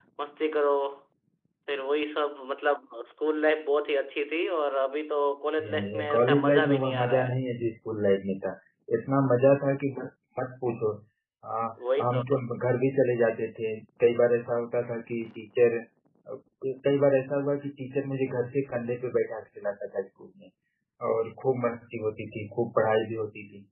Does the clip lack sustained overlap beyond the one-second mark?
No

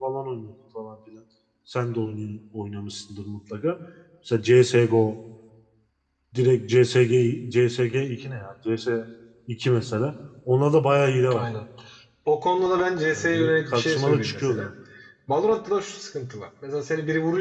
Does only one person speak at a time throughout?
No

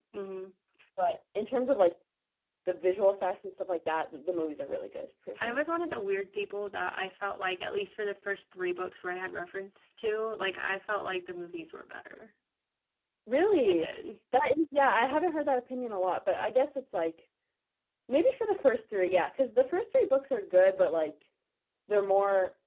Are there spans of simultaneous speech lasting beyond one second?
No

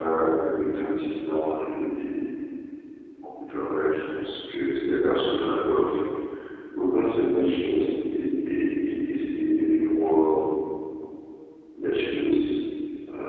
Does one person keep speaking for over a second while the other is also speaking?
No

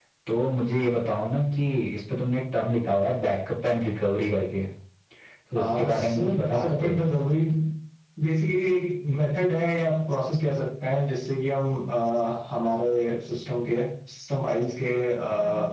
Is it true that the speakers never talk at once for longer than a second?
No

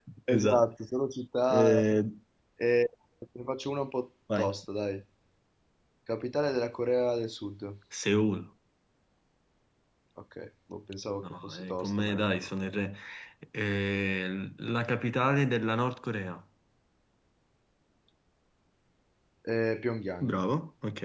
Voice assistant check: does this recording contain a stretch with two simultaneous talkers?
Yes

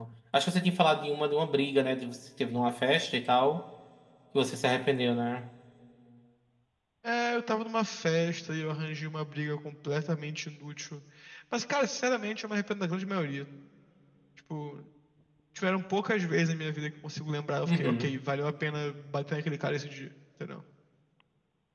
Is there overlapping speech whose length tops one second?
No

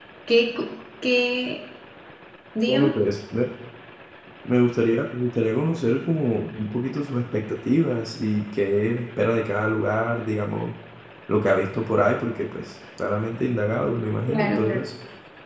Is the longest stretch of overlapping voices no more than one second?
Yes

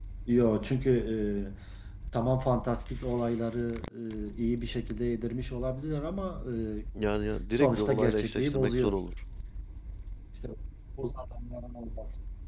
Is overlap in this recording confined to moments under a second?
No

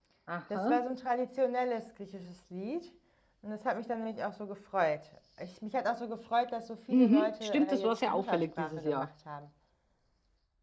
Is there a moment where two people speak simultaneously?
Yes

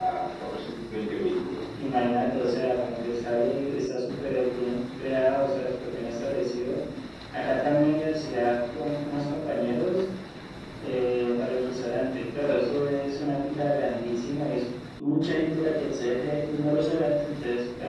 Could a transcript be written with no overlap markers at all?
Yes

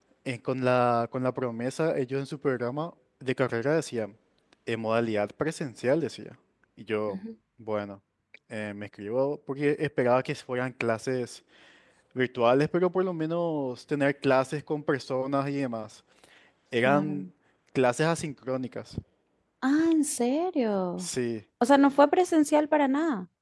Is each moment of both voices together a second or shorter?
Yes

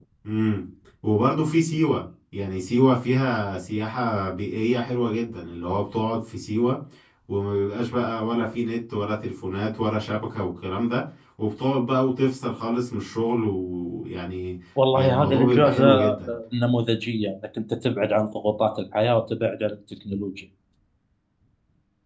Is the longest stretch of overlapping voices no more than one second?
No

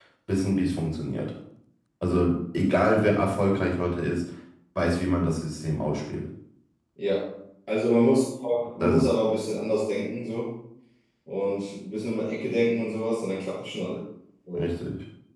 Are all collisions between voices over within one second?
Yes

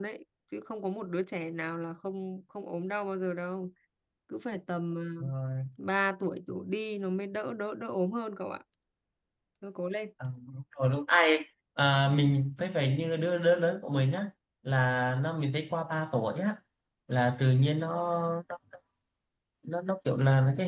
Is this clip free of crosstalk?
Yes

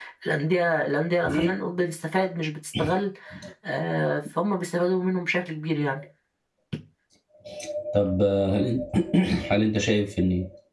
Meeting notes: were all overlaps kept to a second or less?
Yes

